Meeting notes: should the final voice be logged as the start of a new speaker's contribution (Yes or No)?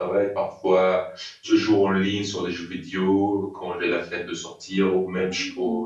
No